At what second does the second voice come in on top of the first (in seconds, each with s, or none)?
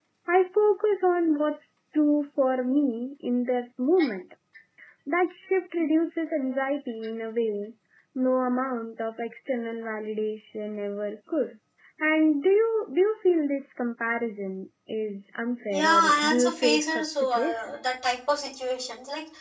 15.7 s